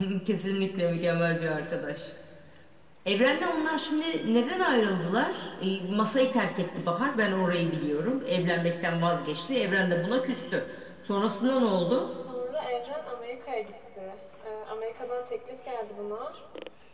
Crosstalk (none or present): none